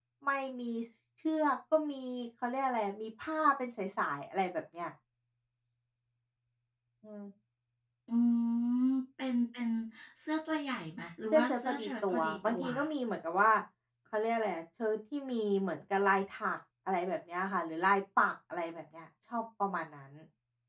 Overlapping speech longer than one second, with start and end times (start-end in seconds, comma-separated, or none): 11.3-12.6